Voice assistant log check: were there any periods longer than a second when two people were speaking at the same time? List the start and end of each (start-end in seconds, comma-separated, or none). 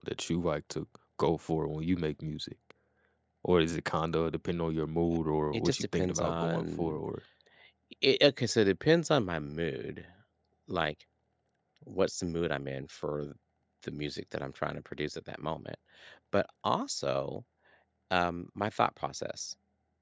5.5-7.0